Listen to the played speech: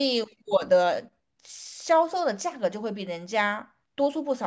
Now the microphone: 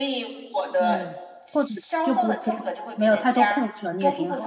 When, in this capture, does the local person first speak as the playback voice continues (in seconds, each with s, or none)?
0.8 s